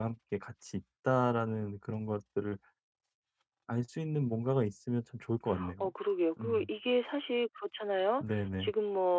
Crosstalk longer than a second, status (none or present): none